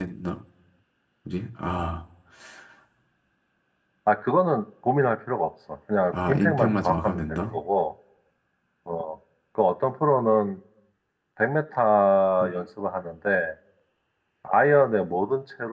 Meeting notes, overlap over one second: present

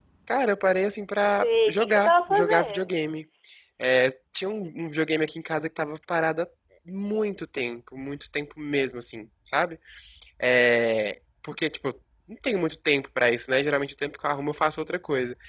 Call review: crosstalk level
present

